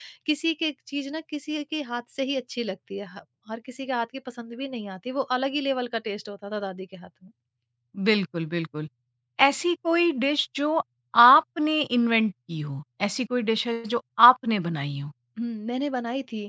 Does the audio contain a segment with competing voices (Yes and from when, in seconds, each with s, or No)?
No